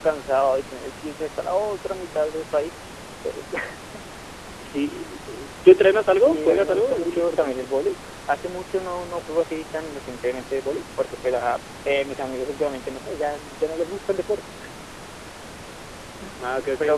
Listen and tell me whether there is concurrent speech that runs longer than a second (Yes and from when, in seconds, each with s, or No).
Yes, from 6.2 s